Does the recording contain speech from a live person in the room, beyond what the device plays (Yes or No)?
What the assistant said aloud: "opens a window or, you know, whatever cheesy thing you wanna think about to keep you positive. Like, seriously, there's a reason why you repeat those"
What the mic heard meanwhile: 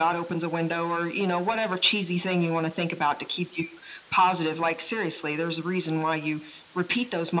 No